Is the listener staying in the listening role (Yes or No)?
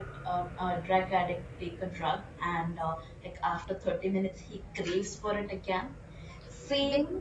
No